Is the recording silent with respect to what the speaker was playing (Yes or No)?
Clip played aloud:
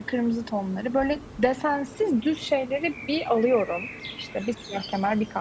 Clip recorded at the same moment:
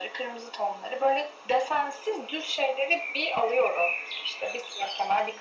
No